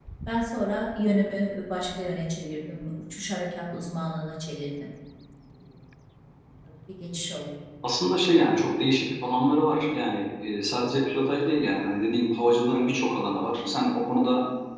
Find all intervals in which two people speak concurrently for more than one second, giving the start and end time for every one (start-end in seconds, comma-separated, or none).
none